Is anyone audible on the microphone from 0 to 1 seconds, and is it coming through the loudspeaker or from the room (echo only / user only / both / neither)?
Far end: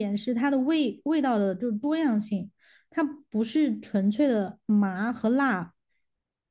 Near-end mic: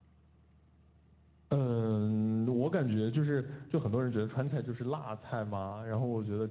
neither